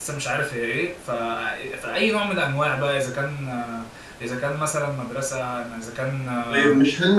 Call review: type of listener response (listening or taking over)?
taking over